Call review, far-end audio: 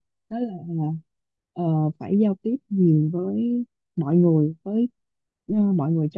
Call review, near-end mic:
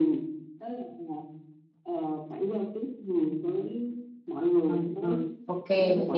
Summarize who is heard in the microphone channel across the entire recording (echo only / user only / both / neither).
both